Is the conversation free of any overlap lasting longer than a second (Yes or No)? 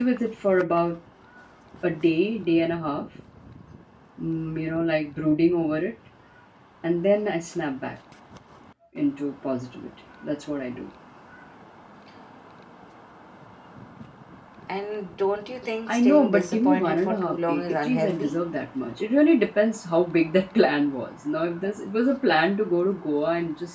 No